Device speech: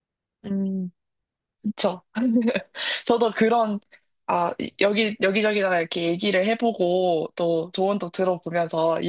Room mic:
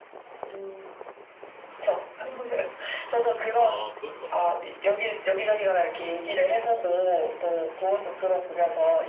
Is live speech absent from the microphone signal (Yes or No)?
No